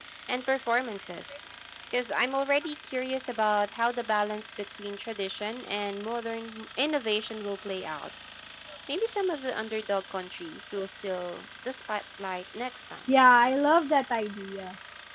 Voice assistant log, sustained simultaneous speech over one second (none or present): none